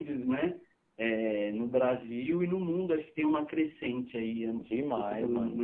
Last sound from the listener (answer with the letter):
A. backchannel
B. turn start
B